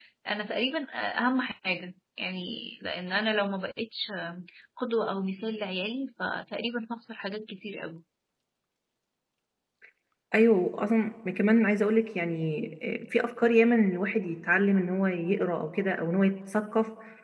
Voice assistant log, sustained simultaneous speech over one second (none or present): none